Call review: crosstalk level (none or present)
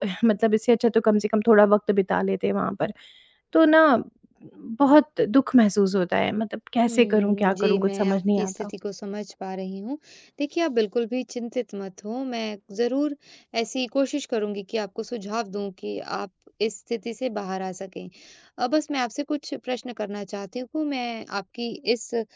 present